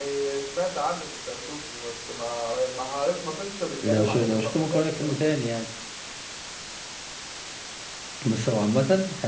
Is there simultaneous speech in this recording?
Yes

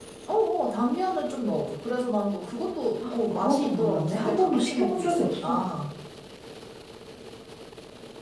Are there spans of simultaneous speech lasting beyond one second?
Yes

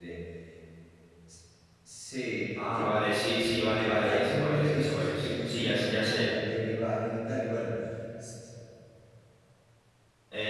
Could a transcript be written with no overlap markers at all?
No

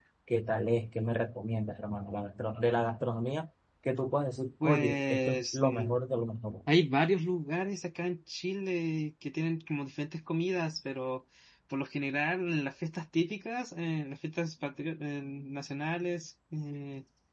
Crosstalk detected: Yes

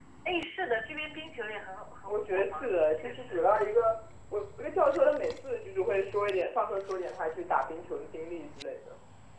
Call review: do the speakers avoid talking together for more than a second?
No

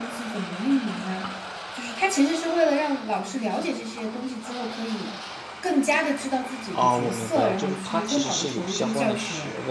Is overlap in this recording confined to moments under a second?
No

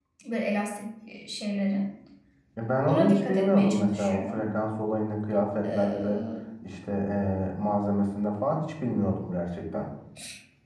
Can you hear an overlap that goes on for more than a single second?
Yes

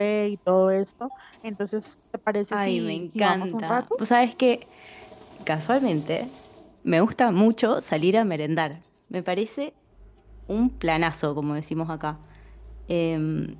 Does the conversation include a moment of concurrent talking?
Yes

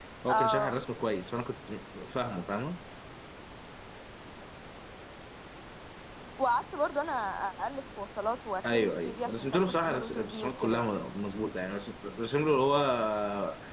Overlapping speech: Yes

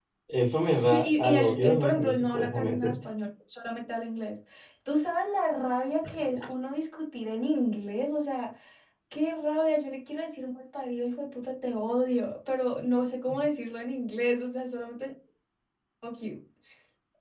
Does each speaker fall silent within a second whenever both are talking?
No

